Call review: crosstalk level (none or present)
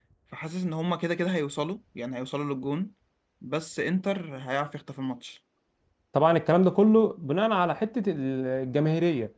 none